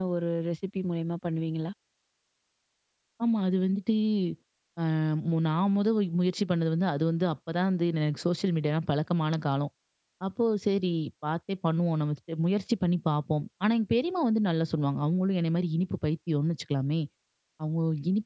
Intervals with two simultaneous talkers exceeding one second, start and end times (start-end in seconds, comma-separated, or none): none